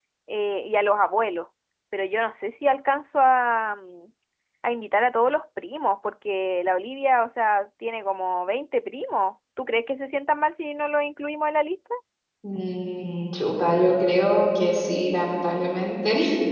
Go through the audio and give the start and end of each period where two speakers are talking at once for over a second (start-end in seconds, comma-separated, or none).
none